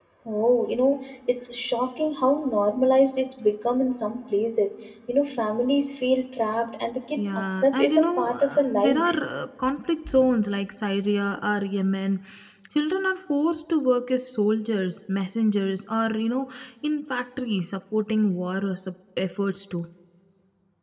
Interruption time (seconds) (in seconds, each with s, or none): 7.2 s